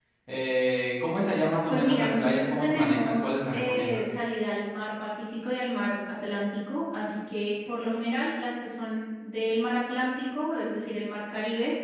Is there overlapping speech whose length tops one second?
Yes, from 1.7 s

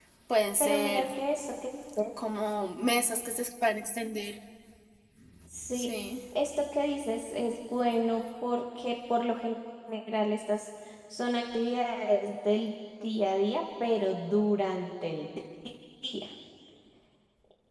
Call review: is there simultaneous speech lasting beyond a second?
No

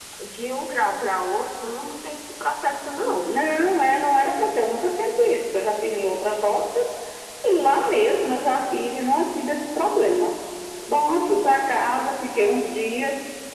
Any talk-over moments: No

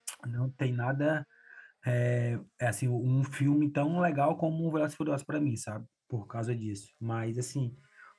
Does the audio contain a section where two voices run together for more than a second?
No

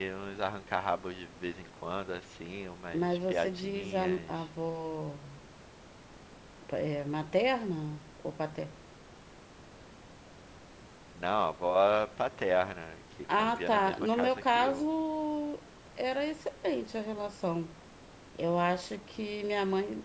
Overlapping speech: Yes, from 2.9 s

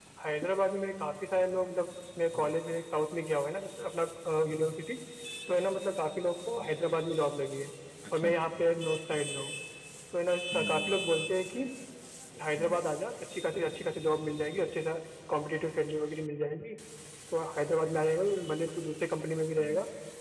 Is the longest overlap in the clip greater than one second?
No

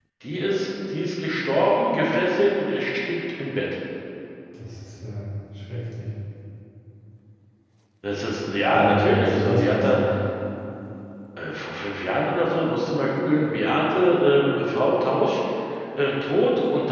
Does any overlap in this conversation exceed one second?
Yes, from 8.7 s

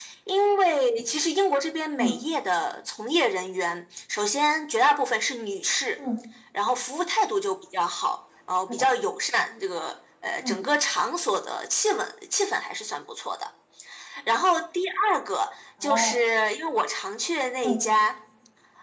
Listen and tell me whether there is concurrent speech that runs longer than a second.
No

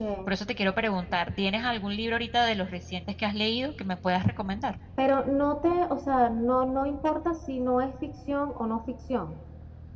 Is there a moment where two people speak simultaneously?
No

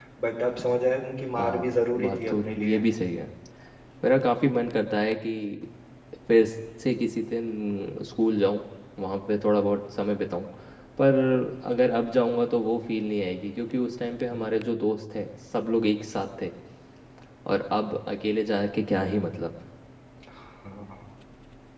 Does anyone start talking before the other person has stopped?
Yes, from 1.4 s

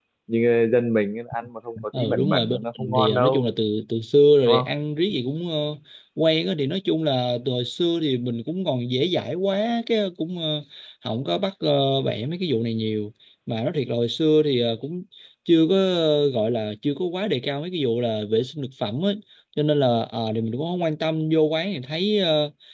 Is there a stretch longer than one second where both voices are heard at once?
Yes, from 2.0 s

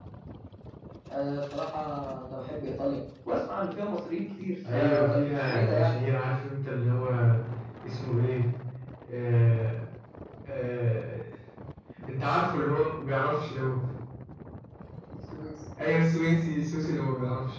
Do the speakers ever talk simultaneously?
Yes, from 4.6 s

